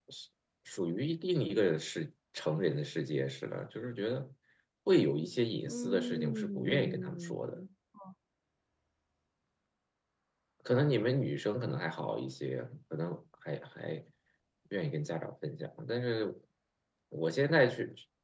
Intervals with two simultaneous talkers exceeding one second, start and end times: 5.7-7.6

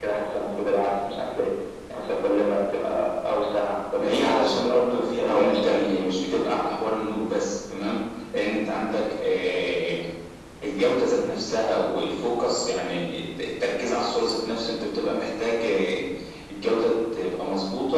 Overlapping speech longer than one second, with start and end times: 4.0-5.8

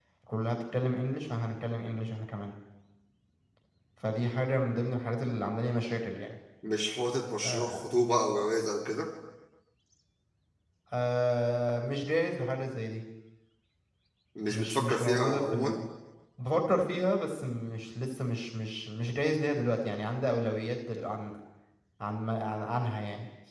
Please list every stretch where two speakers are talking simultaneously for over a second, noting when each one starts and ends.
14.5-15.8

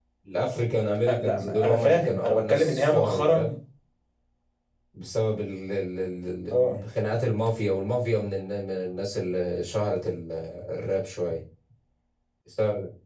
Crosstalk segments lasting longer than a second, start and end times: 1.1-3.5

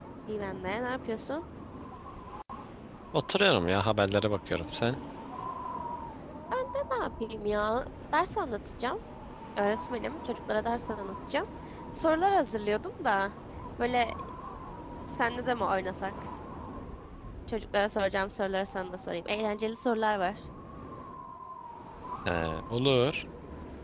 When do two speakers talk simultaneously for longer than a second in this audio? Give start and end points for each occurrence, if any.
none

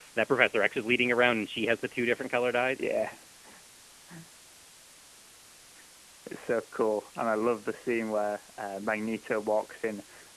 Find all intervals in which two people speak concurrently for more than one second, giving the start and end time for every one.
none

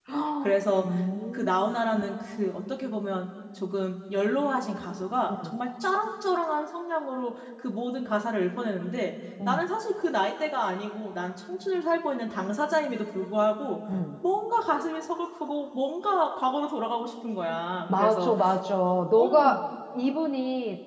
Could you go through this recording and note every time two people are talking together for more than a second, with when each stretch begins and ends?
none

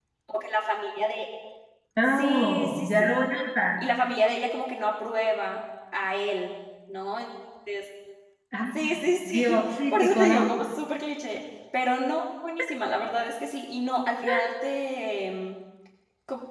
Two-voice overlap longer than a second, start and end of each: 2.0-3.3, 9.2-10.5

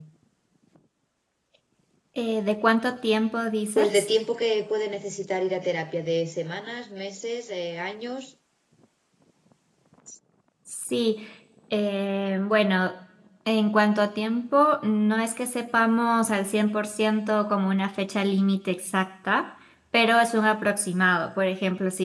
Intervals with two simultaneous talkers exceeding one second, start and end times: none

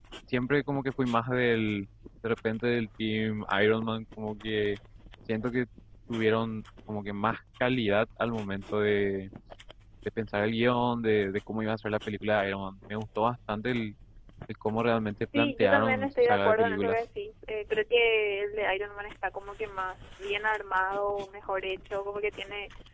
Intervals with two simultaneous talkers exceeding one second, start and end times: 15.4-17.0

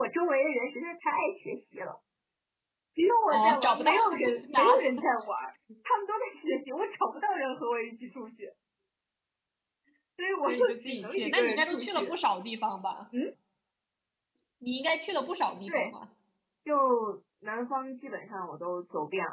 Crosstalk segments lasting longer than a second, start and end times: 3.3-4.8, 10.5-12.1

